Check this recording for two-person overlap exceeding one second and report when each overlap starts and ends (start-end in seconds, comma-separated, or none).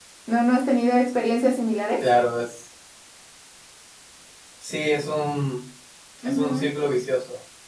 none